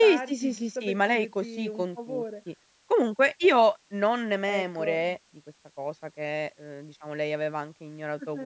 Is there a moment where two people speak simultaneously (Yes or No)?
Yes